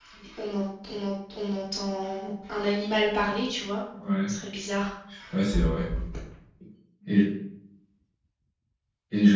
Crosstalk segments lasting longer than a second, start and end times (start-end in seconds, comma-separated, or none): none